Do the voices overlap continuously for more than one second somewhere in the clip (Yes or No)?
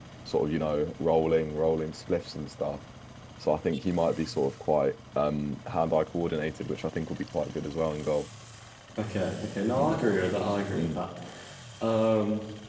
No